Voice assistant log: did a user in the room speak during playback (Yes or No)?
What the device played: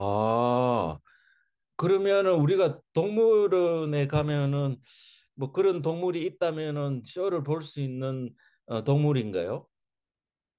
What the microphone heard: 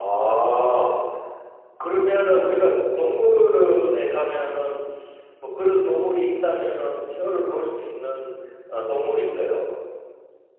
No